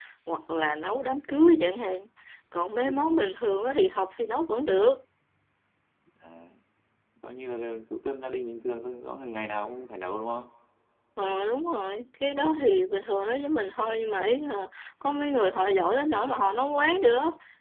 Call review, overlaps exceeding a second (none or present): none